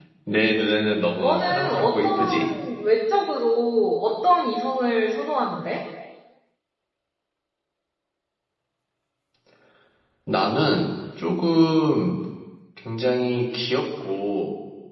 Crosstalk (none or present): present